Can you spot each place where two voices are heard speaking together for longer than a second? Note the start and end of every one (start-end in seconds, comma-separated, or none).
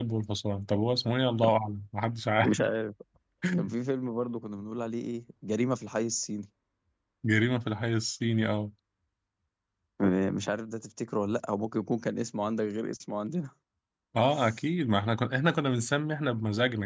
none